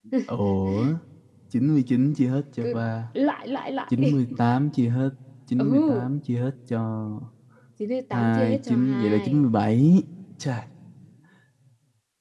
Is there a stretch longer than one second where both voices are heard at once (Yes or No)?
Yes